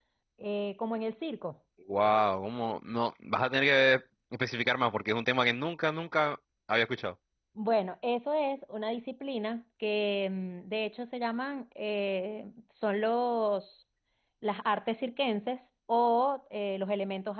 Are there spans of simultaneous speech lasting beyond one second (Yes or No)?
No